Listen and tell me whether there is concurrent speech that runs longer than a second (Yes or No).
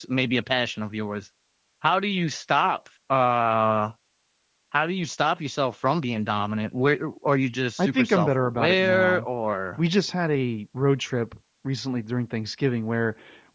Yes